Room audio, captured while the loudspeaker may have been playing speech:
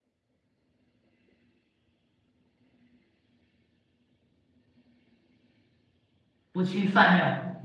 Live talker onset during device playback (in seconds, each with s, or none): 6.5 s